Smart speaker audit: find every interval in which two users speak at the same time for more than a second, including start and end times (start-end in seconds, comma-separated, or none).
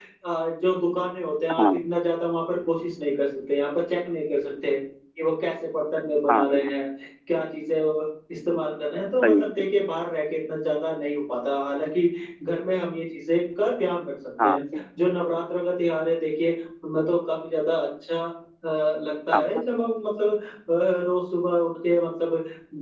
none